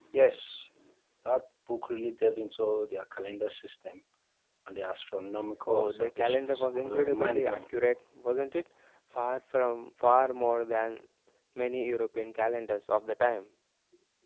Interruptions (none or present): present